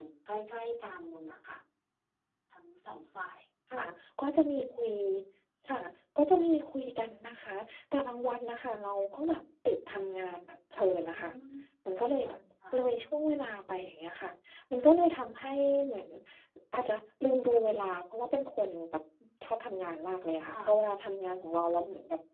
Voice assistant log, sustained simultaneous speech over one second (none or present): none